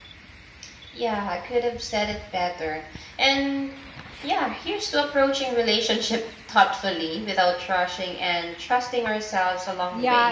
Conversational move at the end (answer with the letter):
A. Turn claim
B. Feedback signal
A